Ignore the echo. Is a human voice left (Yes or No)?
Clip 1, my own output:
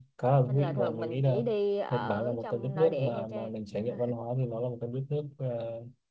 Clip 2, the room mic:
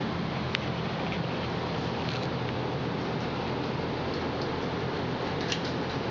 No